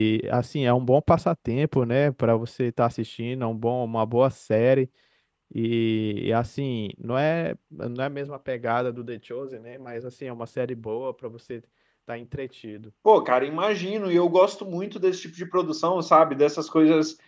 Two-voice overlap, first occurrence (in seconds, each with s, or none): none